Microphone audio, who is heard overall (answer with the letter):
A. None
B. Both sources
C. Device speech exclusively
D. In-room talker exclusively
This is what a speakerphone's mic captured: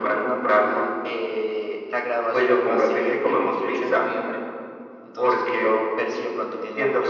C